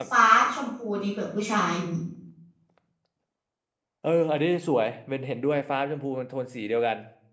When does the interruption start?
none

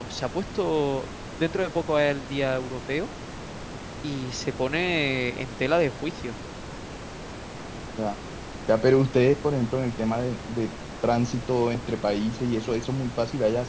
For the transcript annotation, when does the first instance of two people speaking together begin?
none

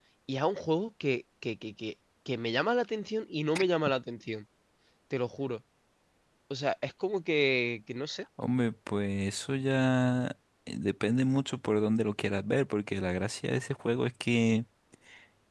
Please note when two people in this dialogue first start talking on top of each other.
none

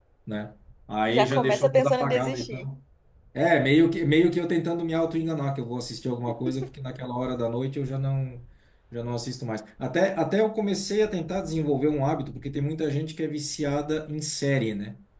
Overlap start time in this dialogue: 1.1 s

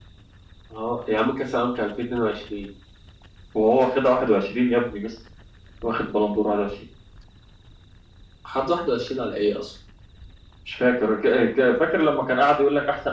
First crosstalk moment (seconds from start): none

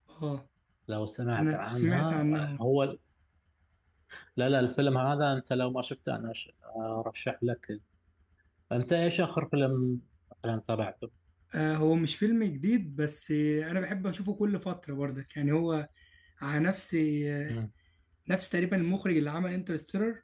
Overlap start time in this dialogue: 1.4 s

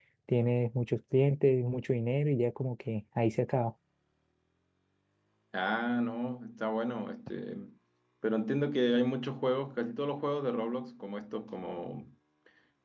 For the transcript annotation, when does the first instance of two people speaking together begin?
none

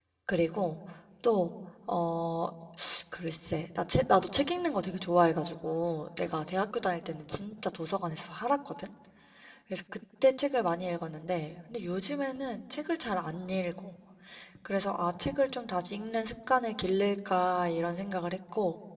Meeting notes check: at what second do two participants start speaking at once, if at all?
none

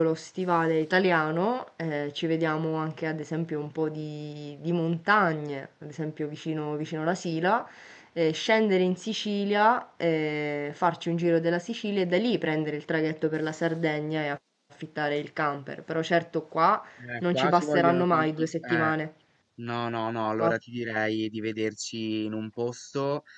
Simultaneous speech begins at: 17.2 s

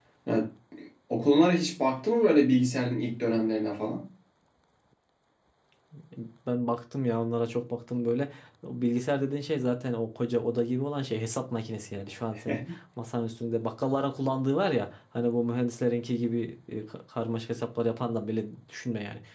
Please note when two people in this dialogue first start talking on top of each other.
none

